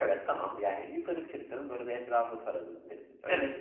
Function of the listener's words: taking over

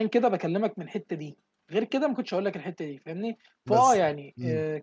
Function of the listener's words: listening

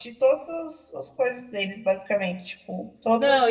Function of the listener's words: taking over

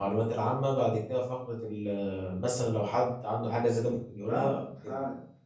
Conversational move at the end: taking over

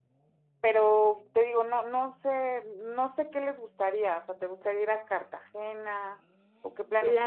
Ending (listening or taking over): taking over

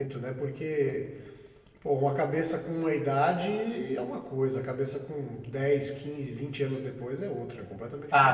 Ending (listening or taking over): taking over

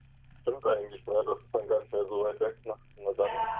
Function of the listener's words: taking over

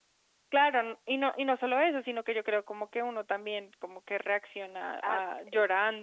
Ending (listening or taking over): taking over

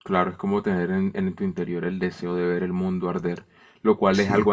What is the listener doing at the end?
listening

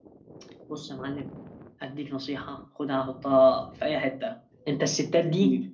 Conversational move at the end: listening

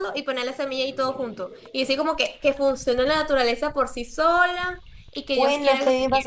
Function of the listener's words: taking over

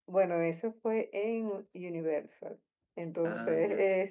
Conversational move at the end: listening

